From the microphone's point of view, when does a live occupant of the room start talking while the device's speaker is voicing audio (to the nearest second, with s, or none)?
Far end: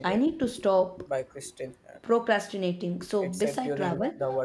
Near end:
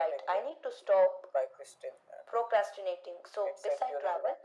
none